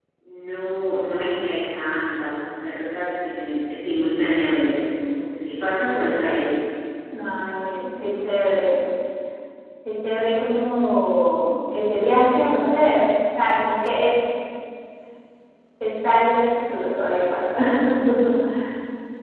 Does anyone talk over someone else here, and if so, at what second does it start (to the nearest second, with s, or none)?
none